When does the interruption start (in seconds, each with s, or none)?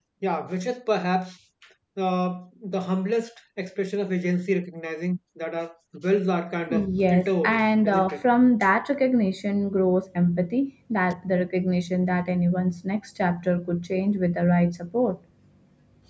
6.7 s